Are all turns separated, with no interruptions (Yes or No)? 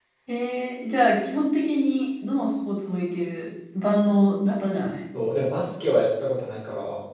Yes